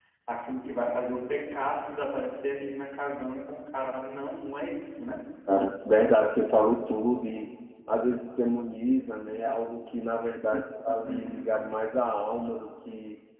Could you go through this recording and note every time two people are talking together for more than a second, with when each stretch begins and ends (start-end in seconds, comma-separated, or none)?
none